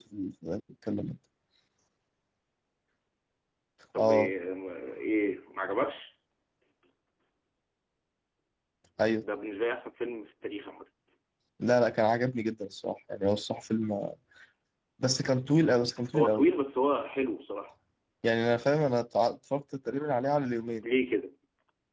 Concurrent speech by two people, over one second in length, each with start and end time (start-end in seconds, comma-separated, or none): none